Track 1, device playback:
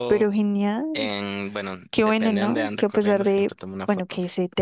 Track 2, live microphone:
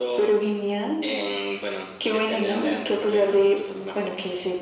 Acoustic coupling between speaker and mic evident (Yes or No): Yes